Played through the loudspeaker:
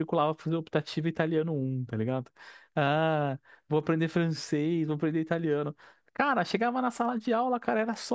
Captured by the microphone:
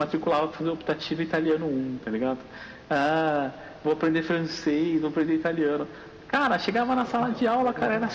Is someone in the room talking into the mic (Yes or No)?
Yes